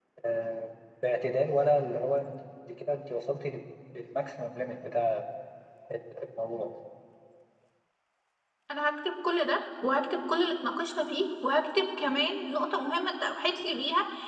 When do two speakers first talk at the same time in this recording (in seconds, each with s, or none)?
none